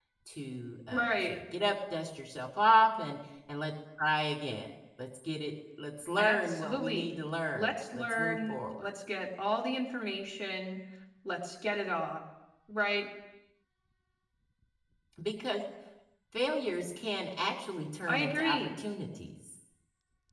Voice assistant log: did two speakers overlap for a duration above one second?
Yes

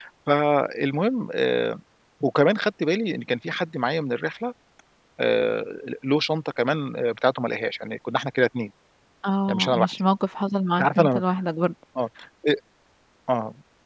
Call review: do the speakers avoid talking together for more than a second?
Yes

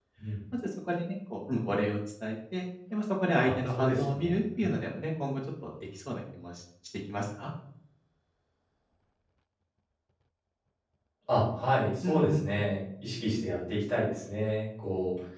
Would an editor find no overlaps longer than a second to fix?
No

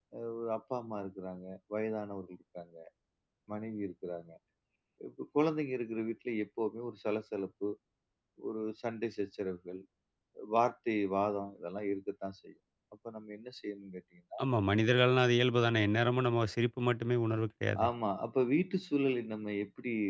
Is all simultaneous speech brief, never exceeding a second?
Yes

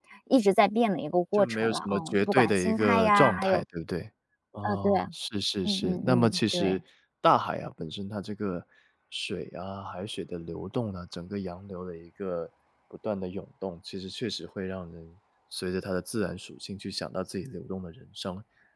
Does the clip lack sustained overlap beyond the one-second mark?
No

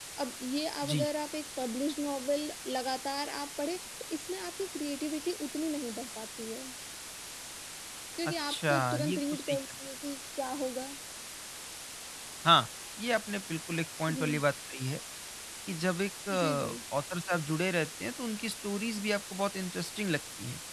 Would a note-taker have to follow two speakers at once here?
Yes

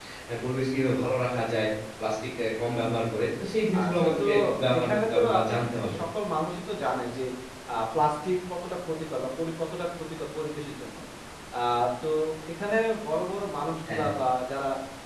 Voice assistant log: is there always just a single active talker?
No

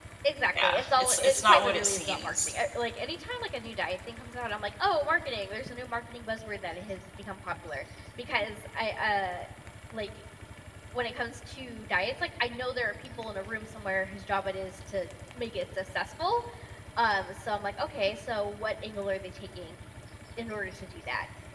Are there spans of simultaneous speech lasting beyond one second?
Yes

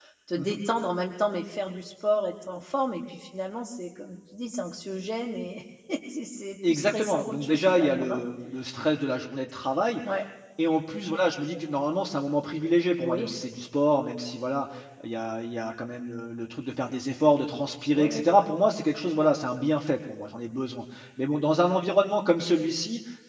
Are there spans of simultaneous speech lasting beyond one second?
Yes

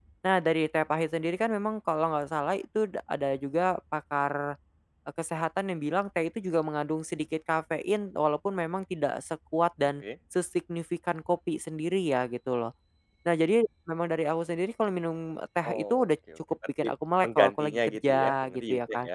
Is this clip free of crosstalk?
No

